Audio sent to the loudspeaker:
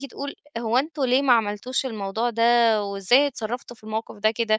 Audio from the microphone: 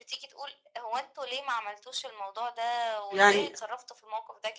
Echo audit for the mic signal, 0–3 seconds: echo only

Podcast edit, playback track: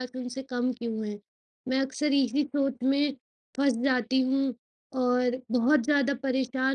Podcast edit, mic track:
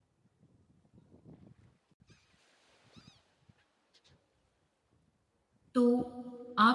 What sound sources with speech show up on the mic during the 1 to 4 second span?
neither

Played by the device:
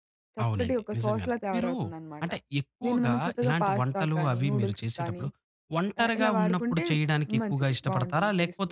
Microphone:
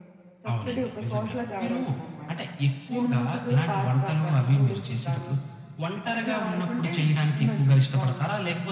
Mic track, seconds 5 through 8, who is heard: echo only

